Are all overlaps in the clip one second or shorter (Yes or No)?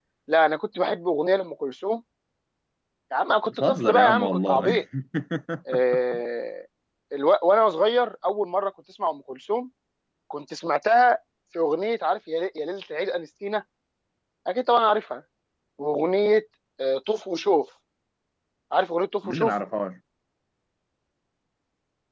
No